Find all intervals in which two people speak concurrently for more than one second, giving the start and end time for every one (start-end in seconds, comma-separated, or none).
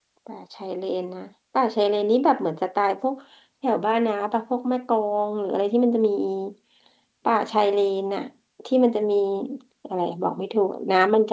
none